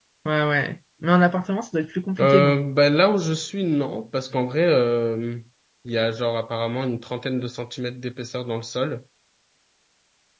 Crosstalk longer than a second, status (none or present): none